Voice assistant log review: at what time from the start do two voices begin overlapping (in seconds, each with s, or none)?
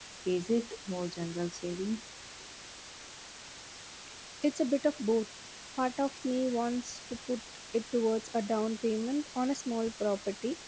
none